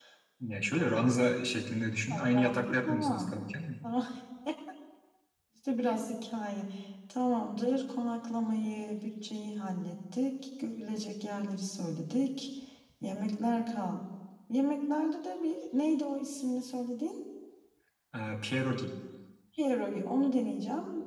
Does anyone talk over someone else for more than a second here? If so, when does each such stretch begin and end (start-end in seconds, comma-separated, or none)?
2.1-3.3